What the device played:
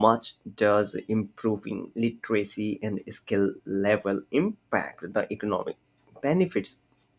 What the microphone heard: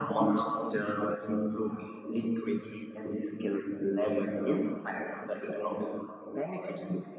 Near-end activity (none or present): none